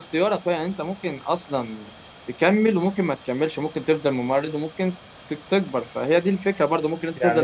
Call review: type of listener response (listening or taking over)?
taking over